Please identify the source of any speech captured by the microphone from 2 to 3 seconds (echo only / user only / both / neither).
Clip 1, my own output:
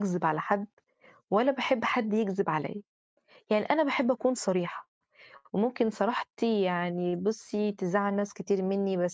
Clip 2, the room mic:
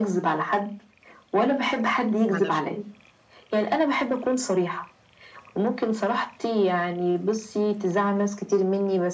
both